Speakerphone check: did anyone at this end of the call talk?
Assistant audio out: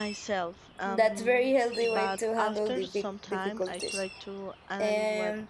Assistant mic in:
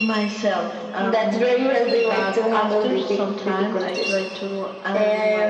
No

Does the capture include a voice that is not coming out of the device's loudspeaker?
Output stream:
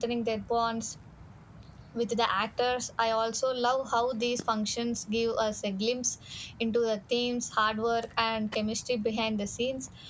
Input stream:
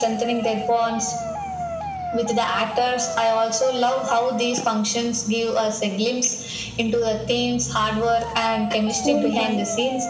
Yes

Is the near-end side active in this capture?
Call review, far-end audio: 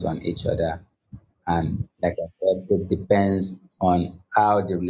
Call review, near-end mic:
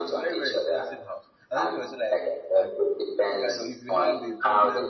Yes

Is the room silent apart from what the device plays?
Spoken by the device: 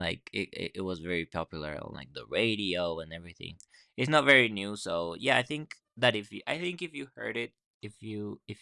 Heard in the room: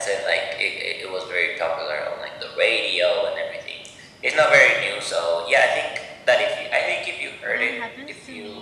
No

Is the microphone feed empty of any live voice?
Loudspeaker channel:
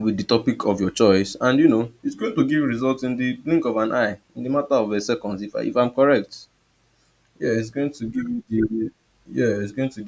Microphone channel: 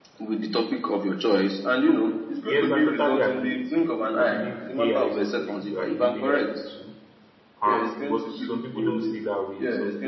No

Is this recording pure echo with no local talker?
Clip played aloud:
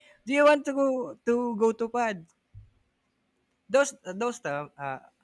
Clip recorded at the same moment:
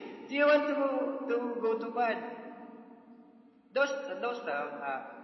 Yes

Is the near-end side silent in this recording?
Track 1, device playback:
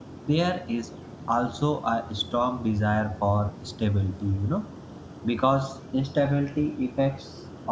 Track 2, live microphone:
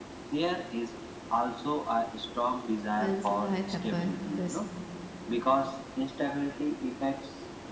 No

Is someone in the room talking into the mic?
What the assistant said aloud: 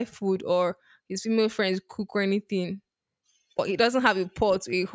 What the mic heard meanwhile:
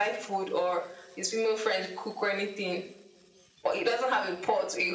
No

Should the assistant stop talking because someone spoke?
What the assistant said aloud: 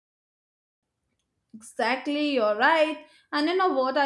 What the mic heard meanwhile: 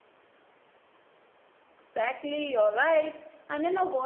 No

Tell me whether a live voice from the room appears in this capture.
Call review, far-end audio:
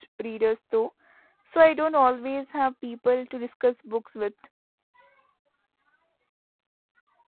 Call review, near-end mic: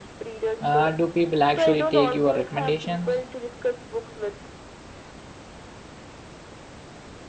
Yes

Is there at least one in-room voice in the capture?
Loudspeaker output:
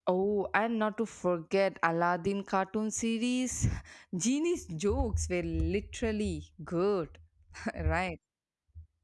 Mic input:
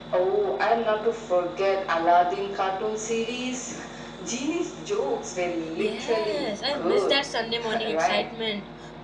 Yes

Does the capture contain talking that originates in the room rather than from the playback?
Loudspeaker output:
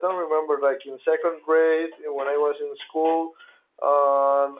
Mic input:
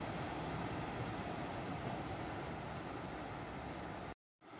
No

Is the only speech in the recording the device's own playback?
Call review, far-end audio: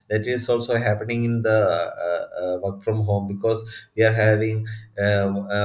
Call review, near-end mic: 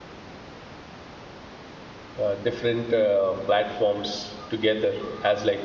No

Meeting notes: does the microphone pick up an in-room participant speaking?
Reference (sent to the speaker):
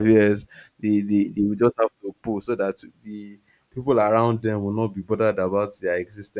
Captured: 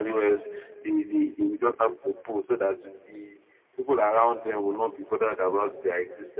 No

